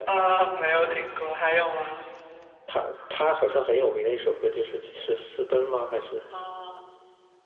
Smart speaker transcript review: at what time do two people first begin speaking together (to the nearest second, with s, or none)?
none